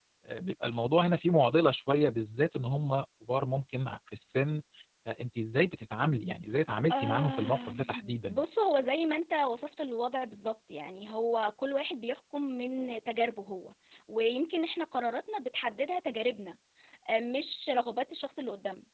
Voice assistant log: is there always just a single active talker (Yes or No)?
No